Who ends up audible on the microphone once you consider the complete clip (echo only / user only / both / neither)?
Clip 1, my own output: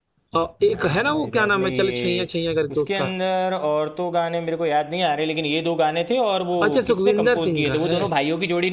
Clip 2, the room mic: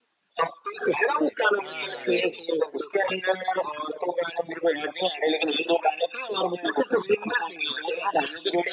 both